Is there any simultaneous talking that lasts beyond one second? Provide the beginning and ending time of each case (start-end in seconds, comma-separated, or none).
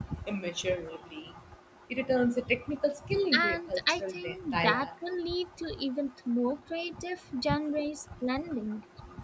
3.3-4.9